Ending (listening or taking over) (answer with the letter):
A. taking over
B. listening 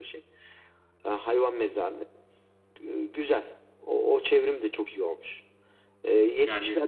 B